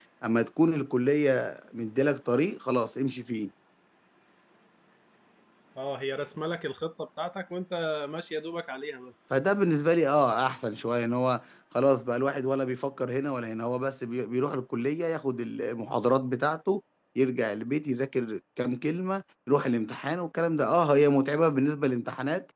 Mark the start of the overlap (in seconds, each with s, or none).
none